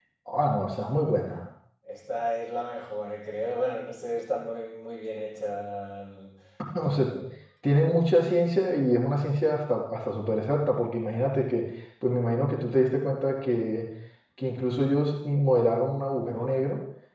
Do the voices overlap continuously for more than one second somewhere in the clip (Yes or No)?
No